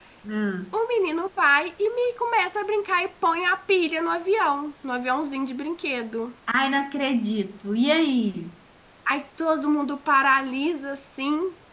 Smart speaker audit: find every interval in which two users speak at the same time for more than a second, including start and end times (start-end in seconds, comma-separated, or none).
none